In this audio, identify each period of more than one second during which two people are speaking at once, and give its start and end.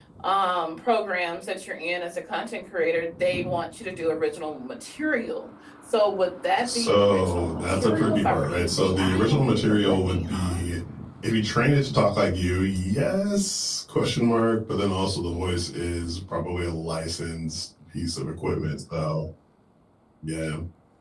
6.6-10.6

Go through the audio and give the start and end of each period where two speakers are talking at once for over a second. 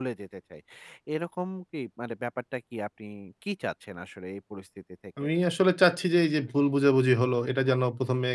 none

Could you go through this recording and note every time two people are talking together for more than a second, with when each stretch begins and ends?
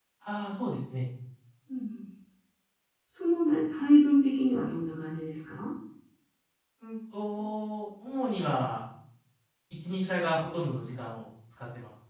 none

